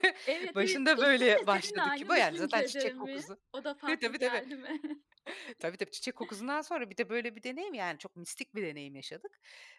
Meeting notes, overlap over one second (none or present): present